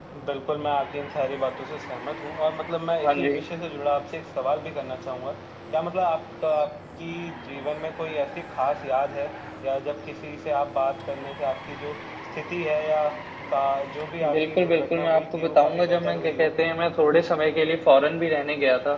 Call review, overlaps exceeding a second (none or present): present